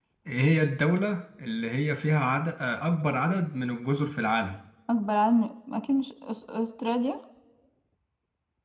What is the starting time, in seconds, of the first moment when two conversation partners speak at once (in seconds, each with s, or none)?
none